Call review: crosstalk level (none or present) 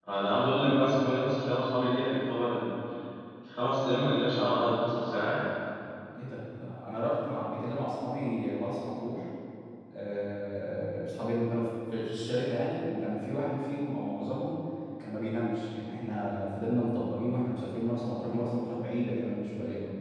none